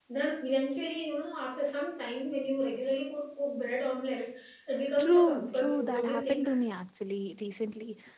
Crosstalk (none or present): present